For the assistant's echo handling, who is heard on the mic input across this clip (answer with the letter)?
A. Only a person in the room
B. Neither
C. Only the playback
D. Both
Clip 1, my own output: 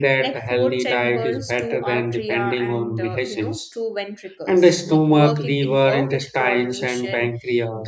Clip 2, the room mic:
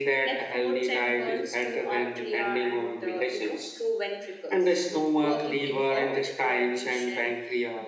C